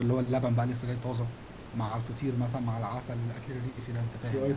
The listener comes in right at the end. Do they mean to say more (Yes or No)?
Yes